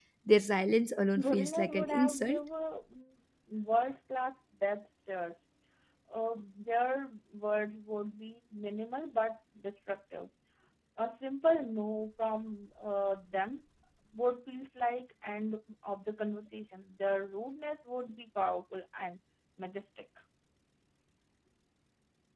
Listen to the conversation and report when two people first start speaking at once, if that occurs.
1.2 s

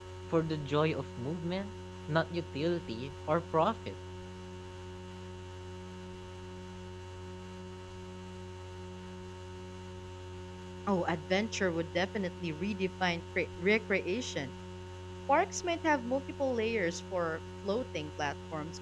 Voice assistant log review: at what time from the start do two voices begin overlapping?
none

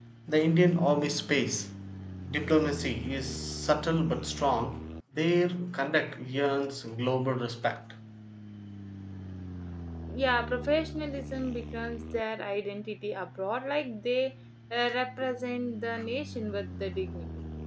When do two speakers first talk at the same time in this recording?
none

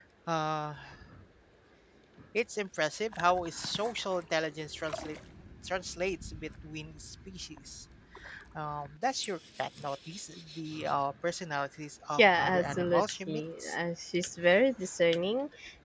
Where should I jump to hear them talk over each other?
12.1 s

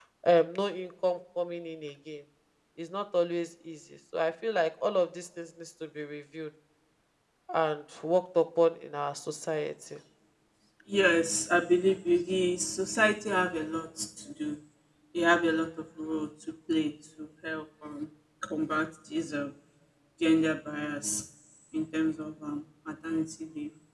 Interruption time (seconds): none

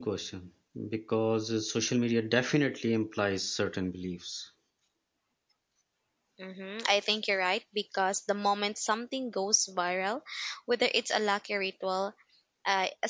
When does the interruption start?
none

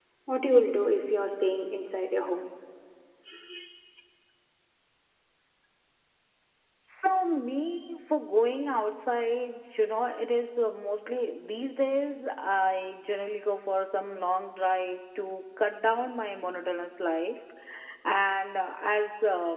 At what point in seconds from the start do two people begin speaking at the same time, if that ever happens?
none

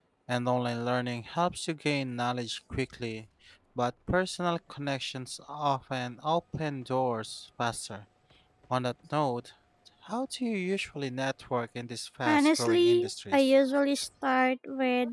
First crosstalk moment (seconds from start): 12.2 s

